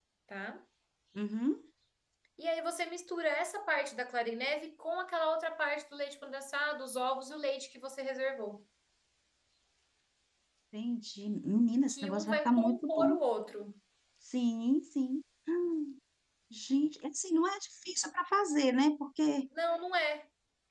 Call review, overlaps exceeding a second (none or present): present